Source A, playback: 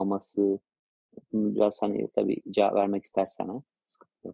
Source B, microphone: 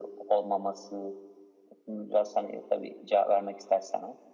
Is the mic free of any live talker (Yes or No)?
Yes